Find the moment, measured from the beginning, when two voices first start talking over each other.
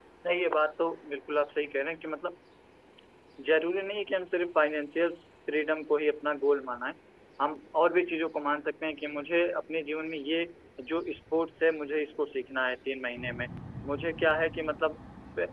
none

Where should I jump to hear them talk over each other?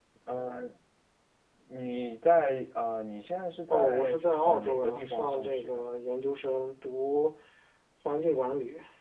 3.7 s

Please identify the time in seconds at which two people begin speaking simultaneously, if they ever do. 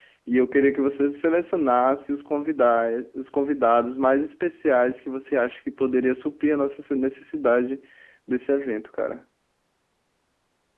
none

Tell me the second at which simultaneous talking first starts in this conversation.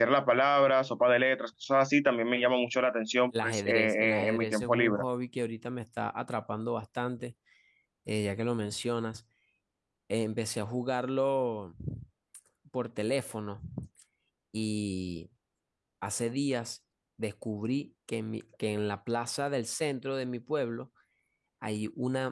3.3 s

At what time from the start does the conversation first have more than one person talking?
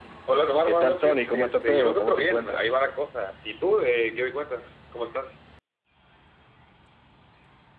0.6 s

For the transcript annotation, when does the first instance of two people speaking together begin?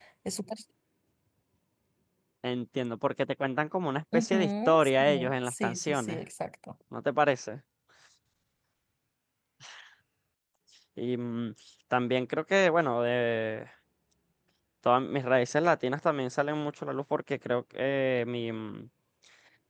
4.1 s

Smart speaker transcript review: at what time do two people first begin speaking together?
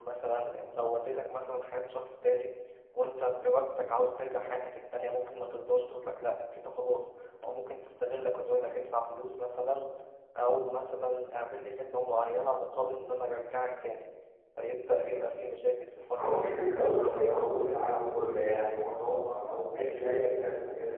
16.1 s

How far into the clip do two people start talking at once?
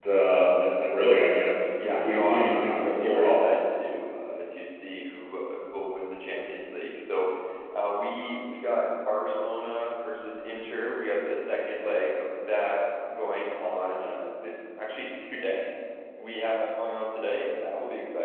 1.7 s

